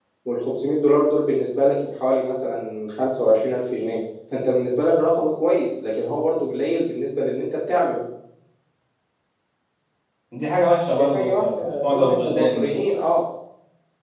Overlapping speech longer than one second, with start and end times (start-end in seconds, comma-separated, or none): 11.0-12.7